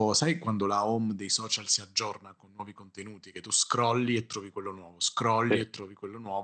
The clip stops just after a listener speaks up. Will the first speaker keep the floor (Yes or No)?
Yes